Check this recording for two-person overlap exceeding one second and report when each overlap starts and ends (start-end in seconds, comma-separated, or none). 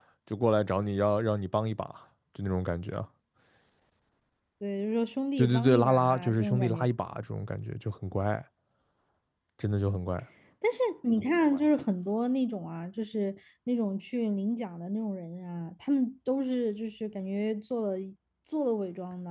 5.4-6.8